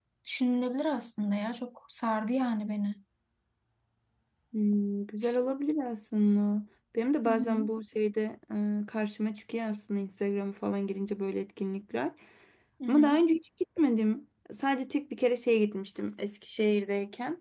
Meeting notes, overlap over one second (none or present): none